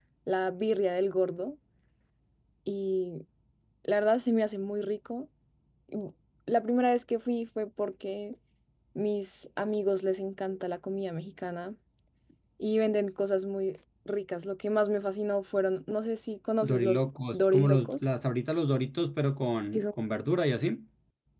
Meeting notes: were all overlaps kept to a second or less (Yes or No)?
No